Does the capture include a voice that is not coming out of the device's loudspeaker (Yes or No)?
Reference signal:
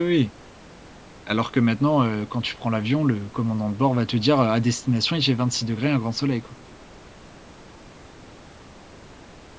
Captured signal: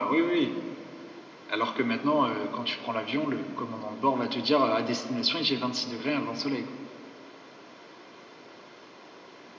No